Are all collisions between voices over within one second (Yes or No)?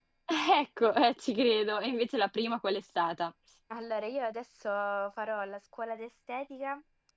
Yes